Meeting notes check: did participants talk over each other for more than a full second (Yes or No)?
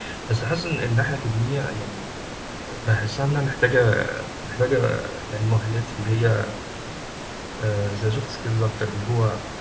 No